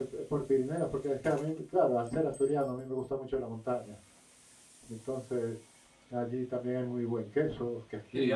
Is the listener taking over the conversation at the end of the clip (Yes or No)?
Yes